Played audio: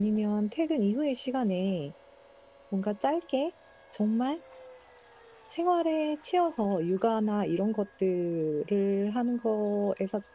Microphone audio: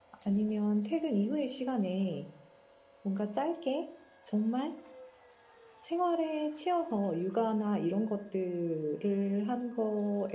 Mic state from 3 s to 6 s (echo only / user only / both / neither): echo only